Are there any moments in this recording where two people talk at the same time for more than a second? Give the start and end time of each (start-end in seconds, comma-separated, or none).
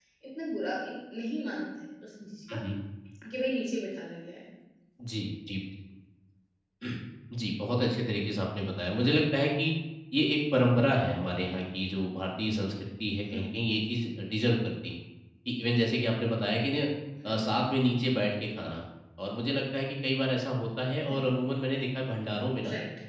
none